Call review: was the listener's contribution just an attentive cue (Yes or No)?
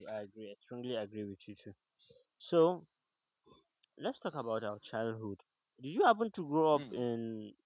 Yes